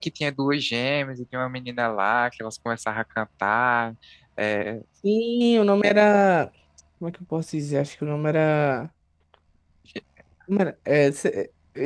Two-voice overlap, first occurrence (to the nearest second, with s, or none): none